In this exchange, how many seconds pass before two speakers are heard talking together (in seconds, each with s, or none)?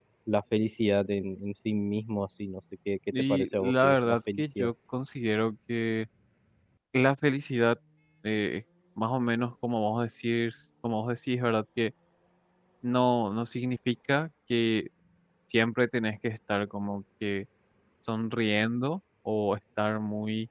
3.1 s